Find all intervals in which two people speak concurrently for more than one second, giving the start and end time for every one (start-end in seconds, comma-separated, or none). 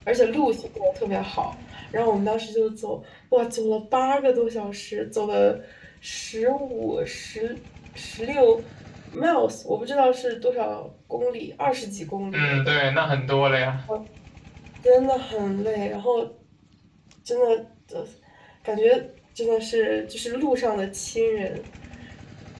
none